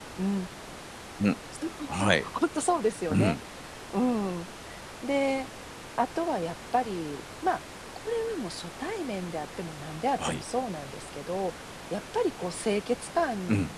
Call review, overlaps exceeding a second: none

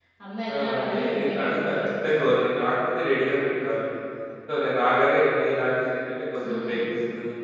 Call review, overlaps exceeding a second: present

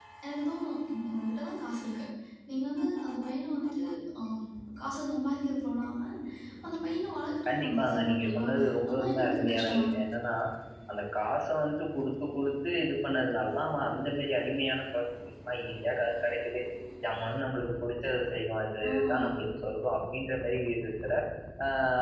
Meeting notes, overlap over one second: present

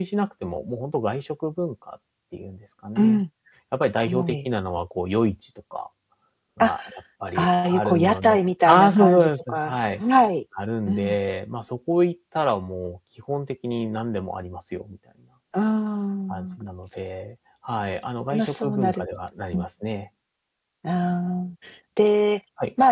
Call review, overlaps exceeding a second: present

